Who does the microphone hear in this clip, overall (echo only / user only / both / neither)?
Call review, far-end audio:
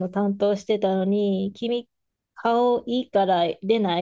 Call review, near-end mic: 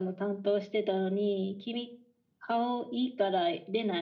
echo only